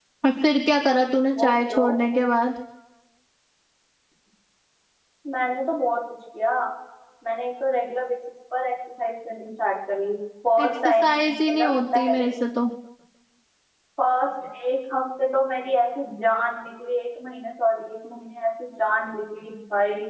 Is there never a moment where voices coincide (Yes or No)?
No